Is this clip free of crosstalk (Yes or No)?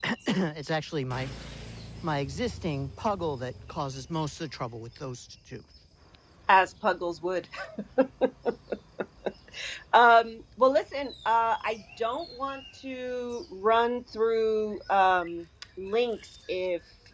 Yes